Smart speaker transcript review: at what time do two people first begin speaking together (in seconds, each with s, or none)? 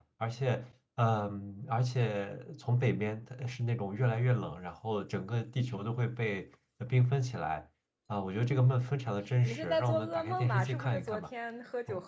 9.4 s